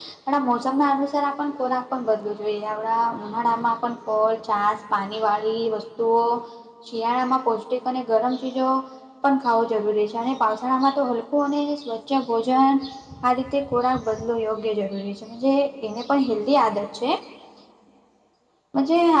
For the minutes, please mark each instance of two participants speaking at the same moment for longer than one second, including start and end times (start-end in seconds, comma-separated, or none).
none